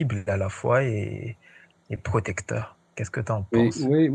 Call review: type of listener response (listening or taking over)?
taking over